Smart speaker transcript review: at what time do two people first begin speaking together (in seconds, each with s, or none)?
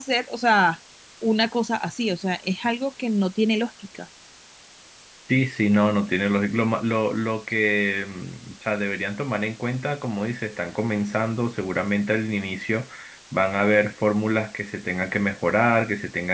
none